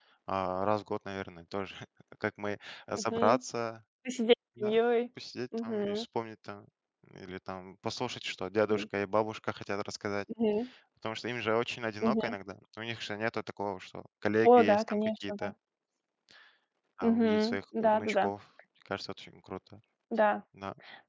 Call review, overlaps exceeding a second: present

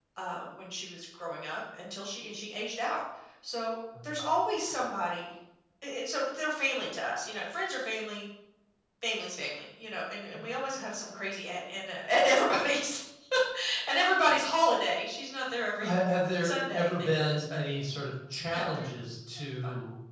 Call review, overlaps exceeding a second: present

